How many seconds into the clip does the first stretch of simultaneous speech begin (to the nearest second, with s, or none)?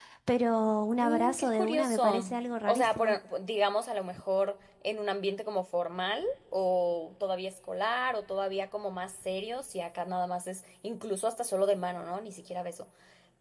1 s